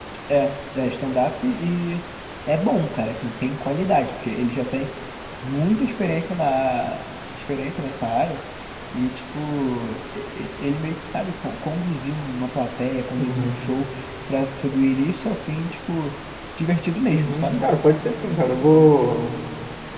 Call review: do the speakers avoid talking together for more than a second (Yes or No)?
Yes